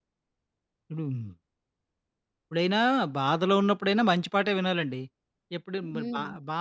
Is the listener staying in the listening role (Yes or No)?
Yes